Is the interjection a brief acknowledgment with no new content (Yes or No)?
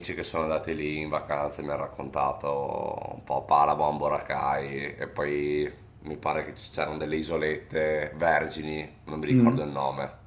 Yes